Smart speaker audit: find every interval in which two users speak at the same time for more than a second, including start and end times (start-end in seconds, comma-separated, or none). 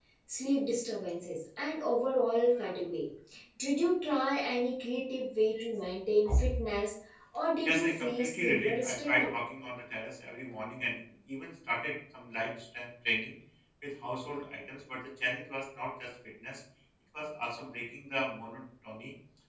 7.7-9.3